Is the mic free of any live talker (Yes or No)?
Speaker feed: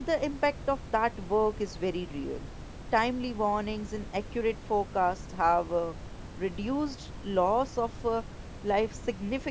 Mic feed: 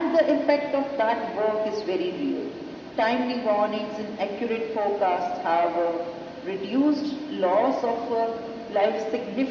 Yes